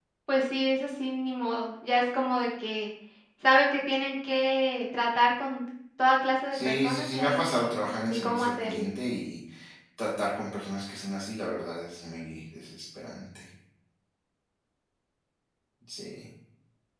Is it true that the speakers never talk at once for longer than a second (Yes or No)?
No